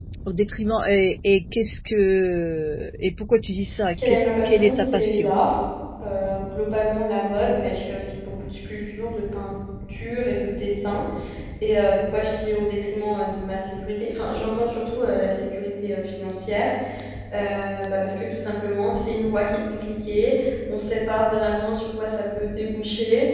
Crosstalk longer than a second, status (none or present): present